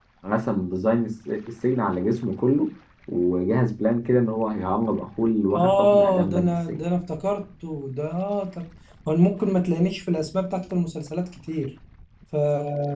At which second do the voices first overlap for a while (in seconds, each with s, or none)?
5.5 s